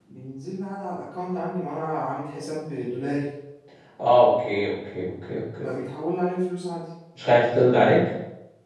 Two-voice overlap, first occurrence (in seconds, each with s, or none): none